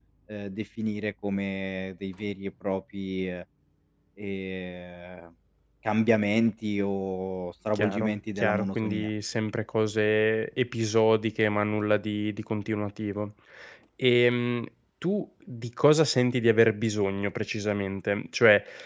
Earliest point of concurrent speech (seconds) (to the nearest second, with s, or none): 8 s